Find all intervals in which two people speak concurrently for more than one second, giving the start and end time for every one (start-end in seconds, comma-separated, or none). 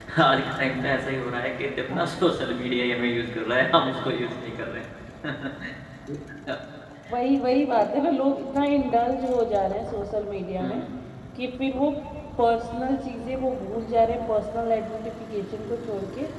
none